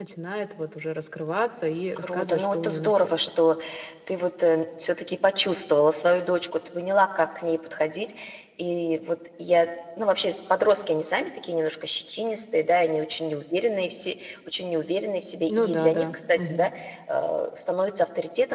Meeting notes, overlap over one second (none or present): present